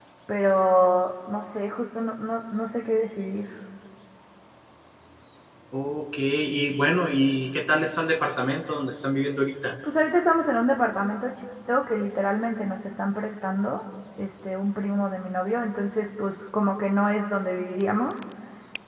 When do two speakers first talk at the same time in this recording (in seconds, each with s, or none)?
none